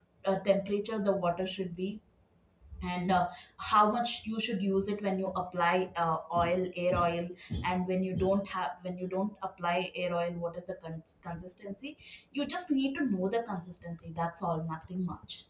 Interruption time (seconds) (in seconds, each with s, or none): none